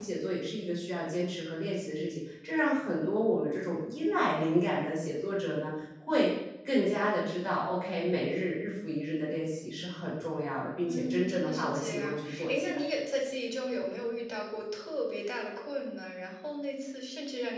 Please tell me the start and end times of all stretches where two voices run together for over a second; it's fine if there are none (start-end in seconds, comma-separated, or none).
10.9-12.8